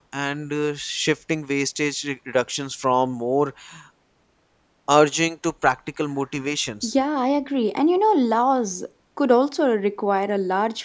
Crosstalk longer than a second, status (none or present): none